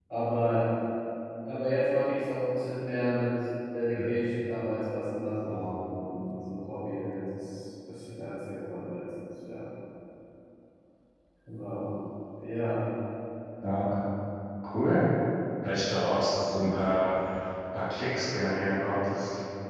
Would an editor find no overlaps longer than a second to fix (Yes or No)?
Yes